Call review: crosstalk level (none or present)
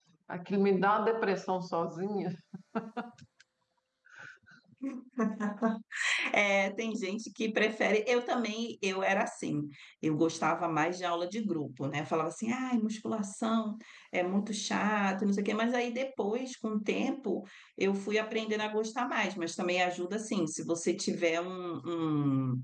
none